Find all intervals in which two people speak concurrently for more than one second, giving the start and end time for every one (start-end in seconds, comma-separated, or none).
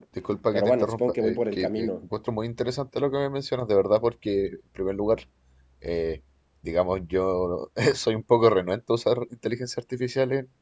0.5-2.0